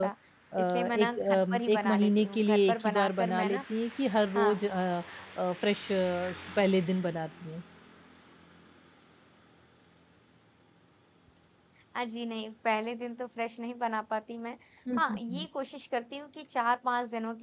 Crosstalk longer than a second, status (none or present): present